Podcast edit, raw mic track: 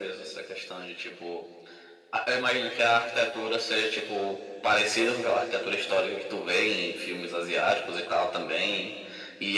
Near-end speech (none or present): none